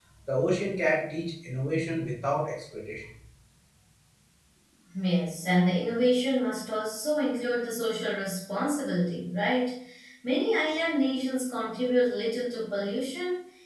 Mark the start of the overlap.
none

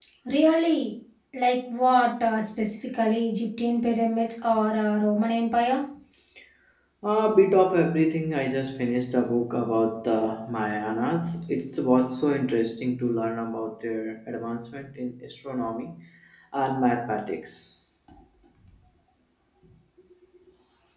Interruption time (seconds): none

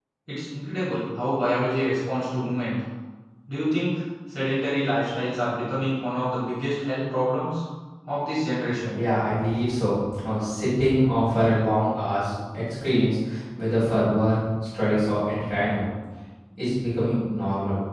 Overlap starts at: none

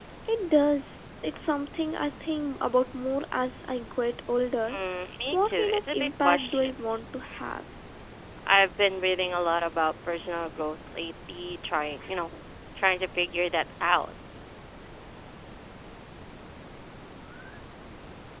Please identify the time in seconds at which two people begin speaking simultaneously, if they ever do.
5 s

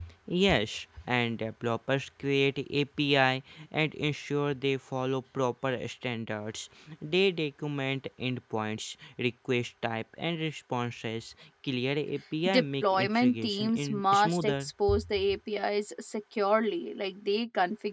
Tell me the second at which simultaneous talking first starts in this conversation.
12 s

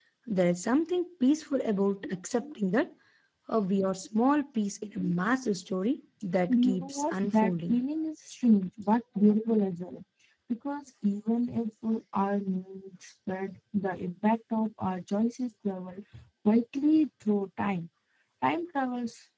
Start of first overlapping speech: 6 s

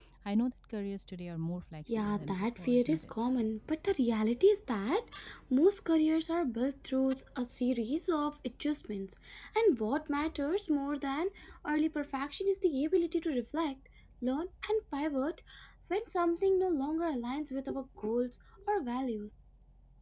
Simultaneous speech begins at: 2 s

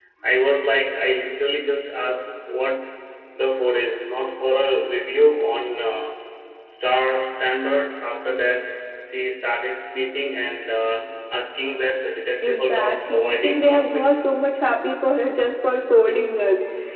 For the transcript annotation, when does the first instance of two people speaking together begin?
12 s

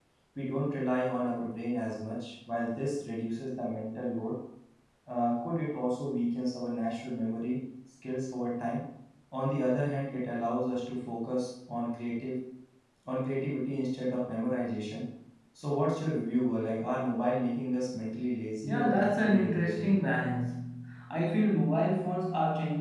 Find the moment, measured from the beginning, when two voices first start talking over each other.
19 s

